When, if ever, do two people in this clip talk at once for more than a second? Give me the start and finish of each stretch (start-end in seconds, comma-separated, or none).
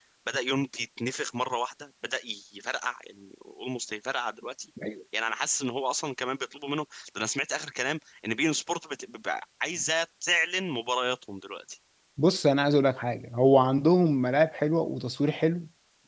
none